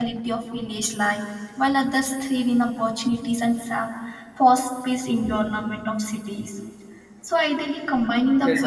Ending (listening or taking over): listening